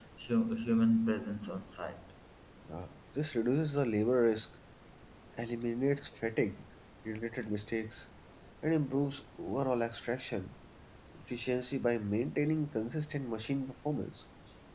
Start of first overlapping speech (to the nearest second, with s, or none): none